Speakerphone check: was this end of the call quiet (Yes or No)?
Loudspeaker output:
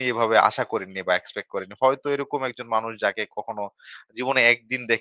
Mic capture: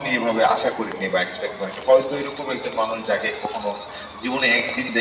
Yes